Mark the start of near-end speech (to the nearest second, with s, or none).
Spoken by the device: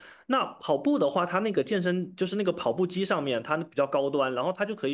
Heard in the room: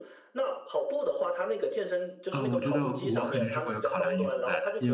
2 s